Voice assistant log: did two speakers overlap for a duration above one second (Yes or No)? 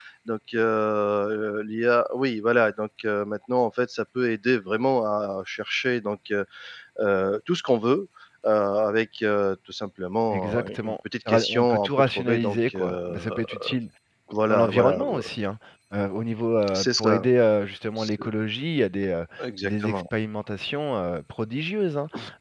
Yes